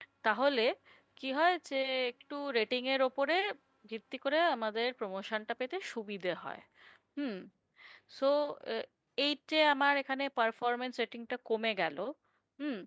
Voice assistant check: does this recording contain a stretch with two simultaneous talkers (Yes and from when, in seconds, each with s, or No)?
No